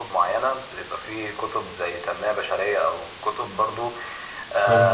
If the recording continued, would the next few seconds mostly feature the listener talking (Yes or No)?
No